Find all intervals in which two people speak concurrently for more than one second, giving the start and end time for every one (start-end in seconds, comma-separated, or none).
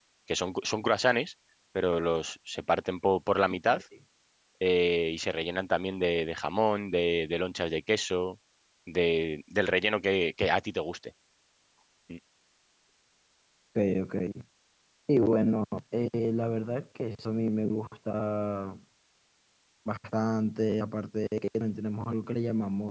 none